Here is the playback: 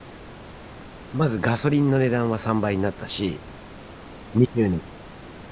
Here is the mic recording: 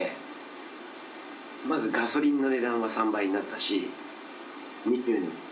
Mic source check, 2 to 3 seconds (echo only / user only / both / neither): echo only